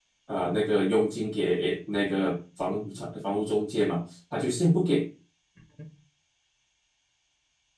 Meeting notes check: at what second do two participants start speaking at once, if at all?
none

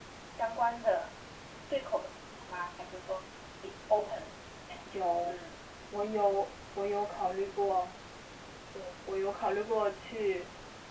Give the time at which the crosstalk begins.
none

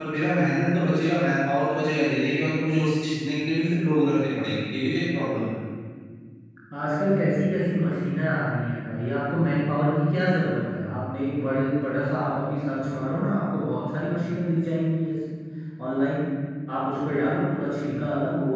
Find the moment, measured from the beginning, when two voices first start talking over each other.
none

